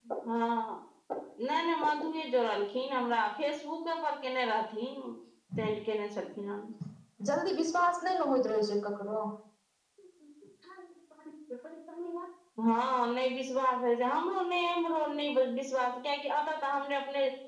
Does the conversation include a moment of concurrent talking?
No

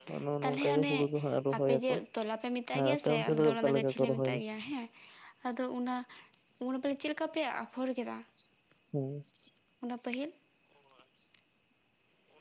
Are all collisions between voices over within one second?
No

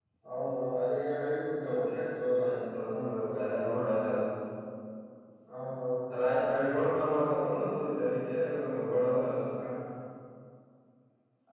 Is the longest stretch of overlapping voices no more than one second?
Yes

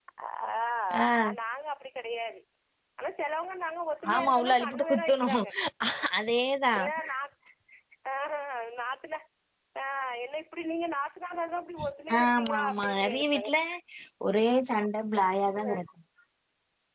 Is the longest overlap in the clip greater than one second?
Yes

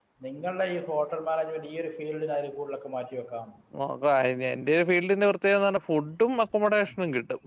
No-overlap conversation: Yes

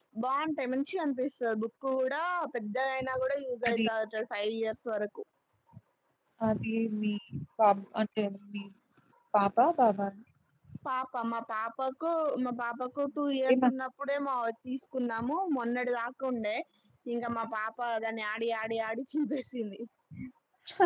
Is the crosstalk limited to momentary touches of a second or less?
Yes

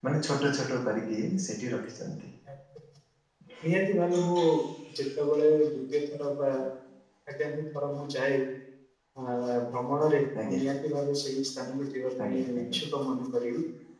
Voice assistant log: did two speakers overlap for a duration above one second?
No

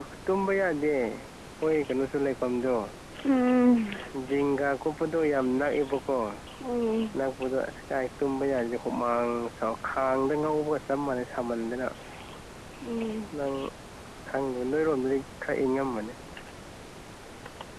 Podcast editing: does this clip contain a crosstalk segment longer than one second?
No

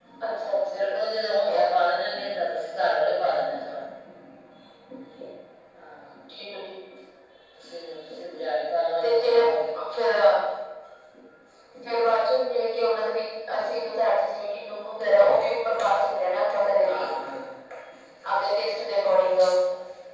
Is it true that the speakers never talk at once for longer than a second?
No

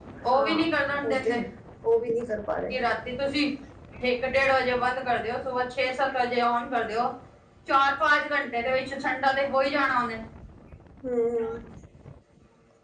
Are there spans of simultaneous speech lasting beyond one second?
No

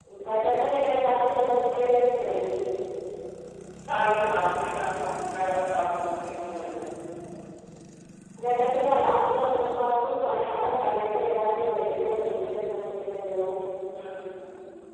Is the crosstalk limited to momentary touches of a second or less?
Yes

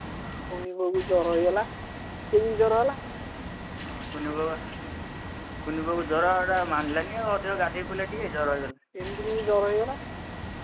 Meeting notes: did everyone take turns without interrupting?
Yes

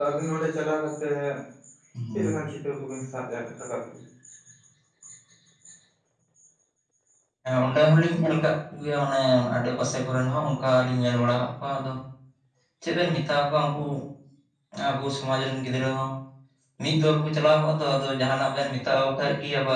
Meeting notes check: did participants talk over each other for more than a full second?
No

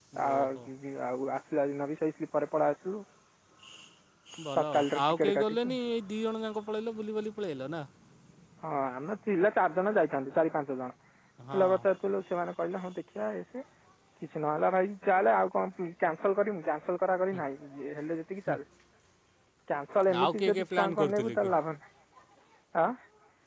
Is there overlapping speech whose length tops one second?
Yes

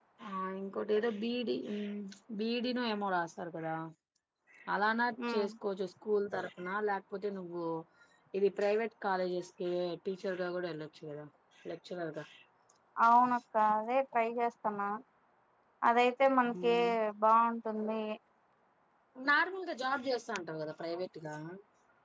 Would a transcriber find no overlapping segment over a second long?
Yes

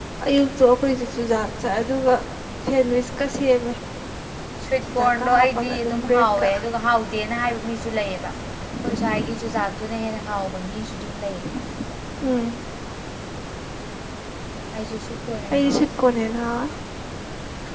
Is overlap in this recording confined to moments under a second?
No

